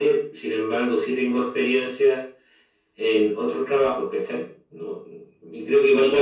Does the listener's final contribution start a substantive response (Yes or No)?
No